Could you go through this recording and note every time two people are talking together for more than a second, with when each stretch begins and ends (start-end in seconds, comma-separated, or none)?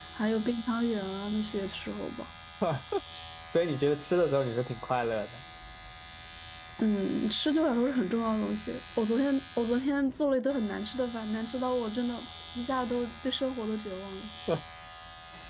none